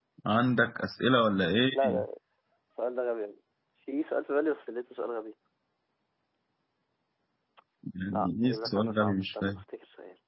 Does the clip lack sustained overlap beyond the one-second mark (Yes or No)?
No